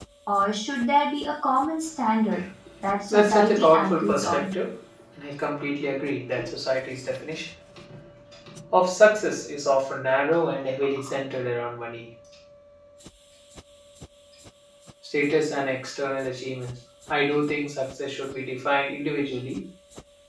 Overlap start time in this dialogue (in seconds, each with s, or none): 3.1 s